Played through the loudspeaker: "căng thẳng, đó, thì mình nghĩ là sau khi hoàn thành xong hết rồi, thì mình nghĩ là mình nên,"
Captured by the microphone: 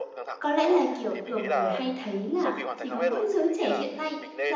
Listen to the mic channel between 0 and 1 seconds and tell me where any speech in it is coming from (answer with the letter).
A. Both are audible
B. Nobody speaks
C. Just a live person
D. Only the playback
A